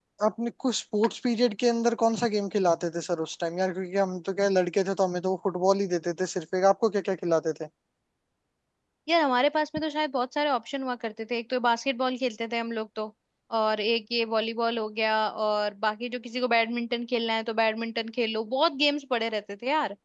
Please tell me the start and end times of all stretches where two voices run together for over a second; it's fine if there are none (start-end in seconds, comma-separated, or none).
none